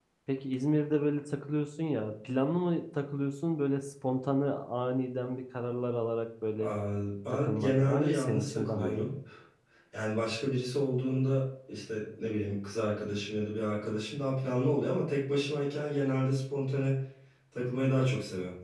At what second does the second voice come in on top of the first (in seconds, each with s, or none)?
7.3 s